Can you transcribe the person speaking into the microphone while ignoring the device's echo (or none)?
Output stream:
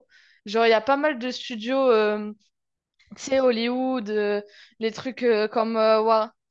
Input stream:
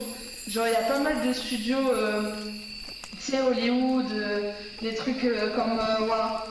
none